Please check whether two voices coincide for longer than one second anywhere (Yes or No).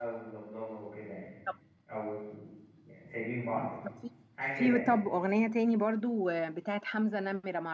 No